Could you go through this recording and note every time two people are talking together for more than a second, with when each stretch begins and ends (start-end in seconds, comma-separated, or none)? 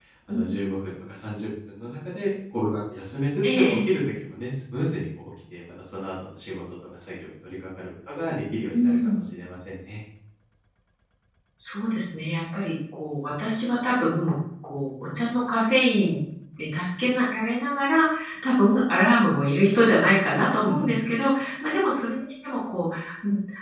none